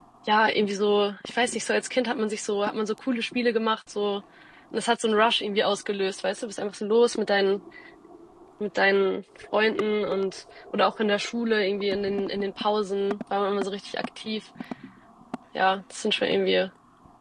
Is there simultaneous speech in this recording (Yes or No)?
No